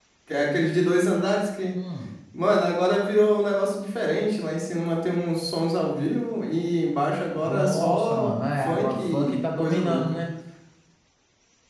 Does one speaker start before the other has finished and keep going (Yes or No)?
Yes